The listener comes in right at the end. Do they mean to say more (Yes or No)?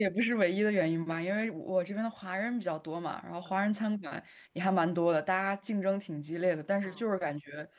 No